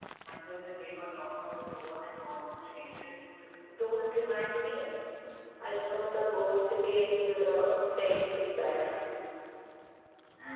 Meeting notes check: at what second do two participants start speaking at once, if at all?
none

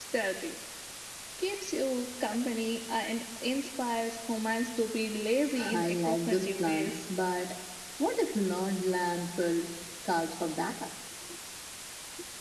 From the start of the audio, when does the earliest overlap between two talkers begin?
5.6 s

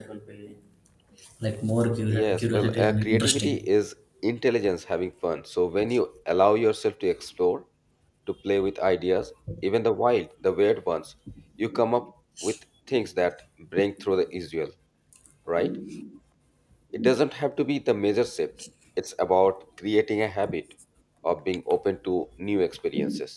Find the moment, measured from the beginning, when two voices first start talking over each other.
2.1 s

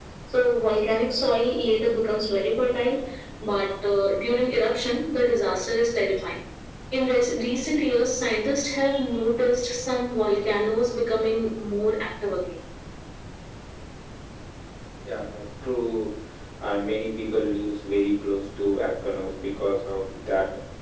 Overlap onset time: none

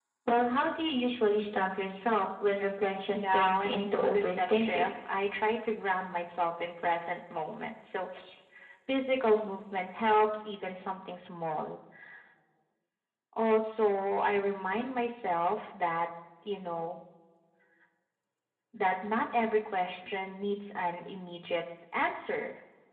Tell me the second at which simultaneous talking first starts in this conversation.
3.1 s

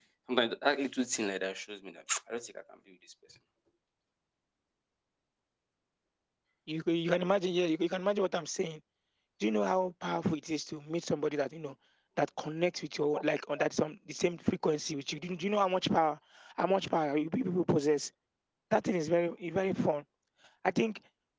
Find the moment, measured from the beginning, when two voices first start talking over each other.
none

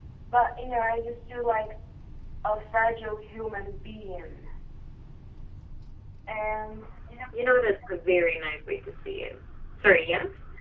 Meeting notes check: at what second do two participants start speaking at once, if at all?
none

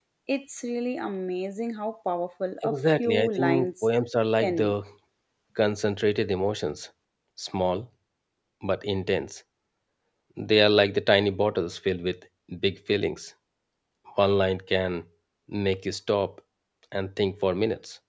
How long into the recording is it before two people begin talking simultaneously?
2.6 s

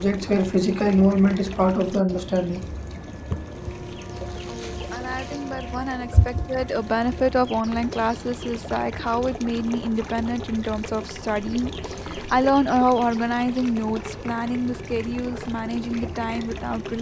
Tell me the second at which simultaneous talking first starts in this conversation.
none

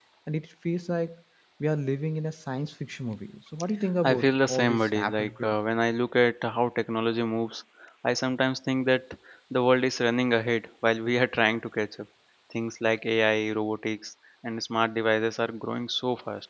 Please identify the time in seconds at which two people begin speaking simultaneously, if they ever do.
4.0 s

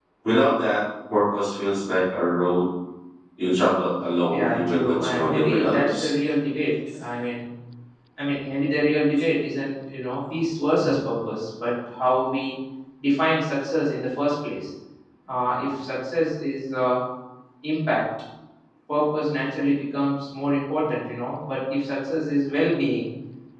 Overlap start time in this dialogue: 4.3 s

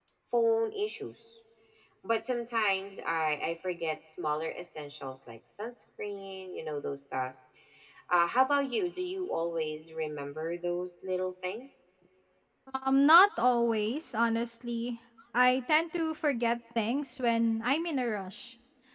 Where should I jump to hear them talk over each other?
none

